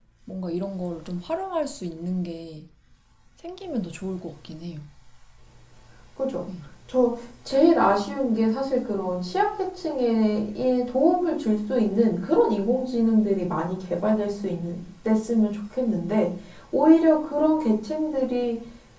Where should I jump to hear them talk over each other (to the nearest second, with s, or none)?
none